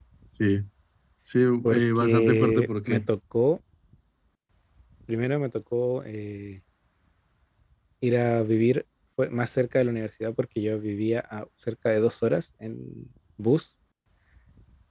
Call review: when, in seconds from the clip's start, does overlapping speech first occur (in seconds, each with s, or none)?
1.6 s